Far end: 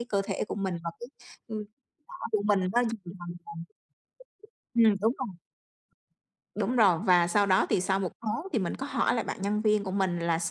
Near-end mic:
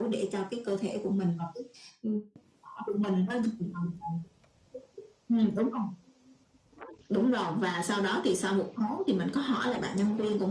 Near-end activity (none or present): none